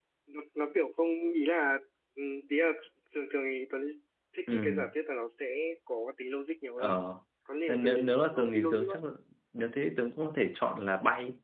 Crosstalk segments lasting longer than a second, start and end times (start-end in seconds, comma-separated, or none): 7.7-9.0